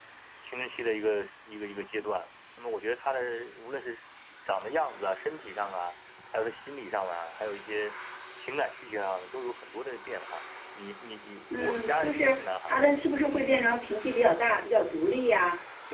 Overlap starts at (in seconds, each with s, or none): 11.5 s